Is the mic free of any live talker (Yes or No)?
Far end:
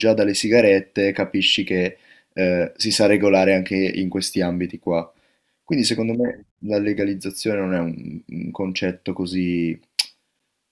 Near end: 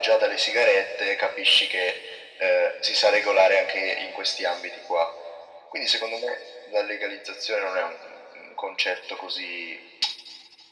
Yes